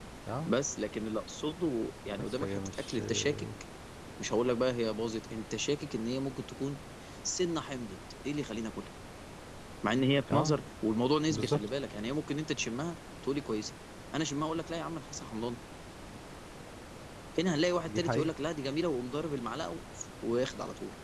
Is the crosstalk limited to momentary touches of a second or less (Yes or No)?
No